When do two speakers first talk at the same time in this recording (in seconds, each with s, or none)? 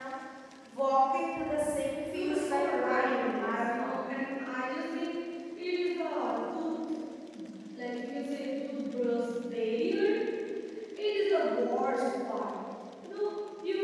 2.1 s